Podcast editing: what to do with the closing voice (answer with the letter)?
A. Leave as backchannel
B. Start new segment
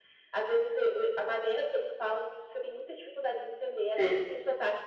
A